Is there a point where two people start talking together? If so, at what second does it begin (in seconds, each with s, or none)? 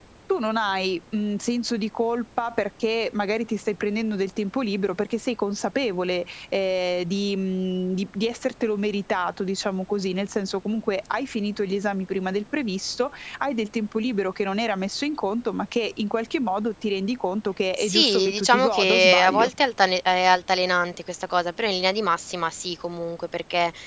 17.8 s